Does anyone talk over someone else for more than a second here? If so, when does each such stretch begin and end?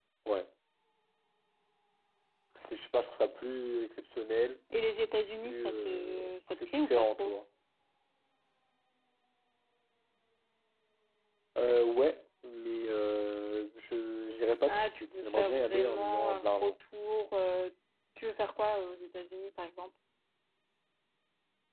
5.4-7.3, 14.7-16.7

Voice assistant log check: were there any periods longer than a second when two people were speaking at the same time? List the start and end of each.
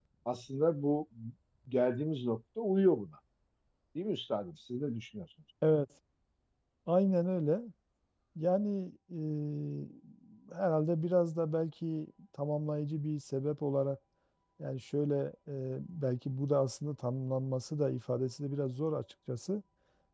none

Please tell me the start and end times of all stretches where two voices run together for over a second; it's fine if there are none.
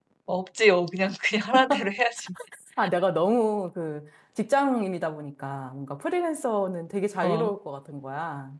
none

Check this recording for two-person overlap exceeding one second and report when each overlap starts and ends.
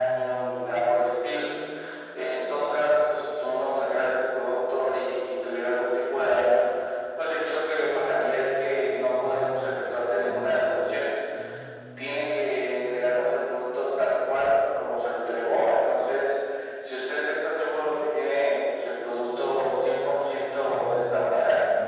none

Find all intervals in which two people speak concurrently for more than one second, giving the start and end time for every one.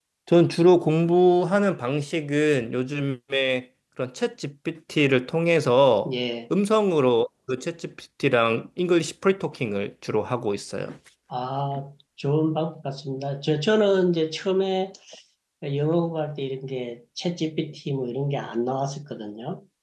none

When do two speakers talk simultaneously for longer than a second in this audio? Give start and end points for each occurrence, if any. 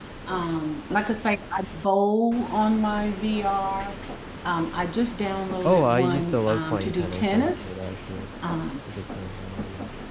5.7-7.7

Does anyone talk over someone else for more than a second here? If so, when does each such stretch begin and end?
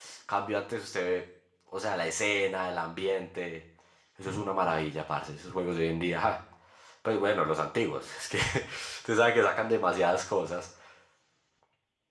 none

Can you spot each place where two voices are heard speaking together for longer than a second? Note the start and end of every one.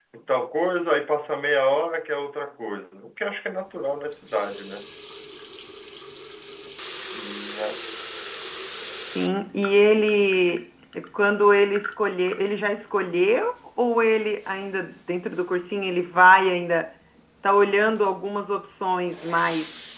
none

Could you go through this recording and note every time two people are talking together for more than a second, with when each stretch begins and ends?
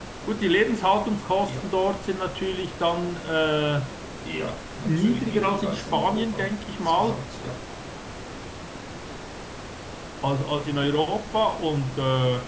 4.8-7.2

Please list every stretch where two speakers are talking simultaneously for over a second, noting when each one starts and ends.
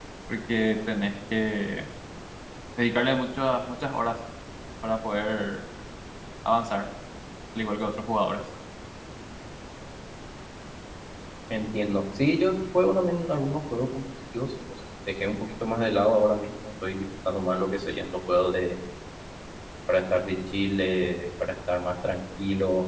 none

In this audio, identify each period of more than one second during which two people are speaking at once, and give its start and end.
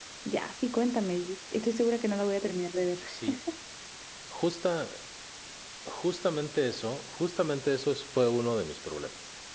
none

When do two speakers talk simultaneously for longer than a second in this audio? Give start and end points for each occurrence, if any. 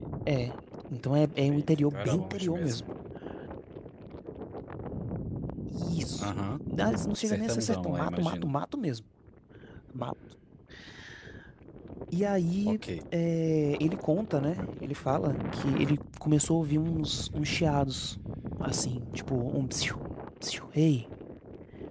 1.5-2.8, 7.2-8.5

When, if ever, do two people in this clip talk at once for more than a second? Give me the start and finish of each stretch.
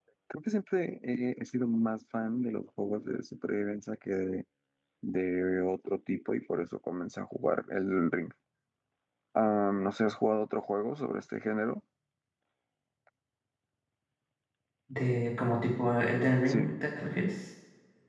none

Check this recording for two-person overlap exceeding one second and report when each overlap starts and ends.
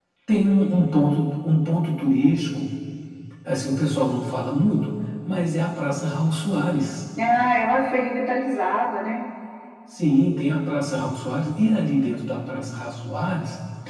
none

